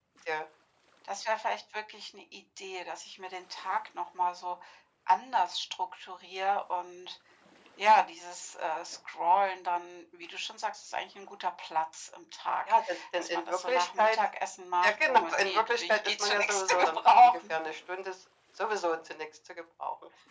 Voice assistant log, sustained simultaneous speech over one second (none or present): present